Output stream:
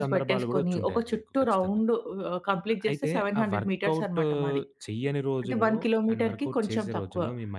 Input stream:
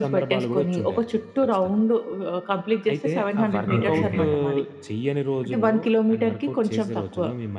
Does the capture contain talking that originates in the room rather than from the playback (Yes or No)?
Yes